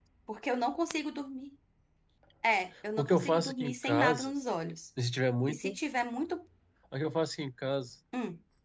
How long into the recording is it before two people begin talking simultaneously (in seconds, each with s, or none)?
3.0 s